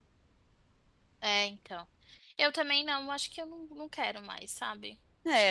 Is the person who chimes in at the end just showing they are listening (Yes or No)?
No